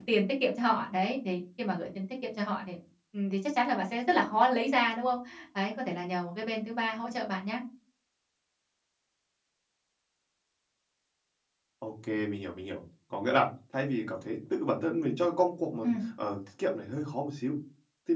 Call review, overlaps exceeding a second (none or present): none